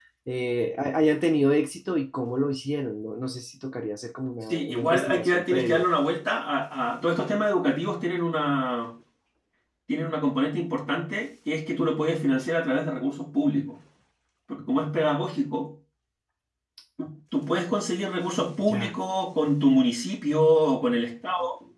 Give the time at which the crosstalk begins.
5 s

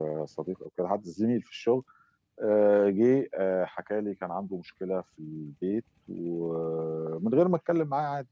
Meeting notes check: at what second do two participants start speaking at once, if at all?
none

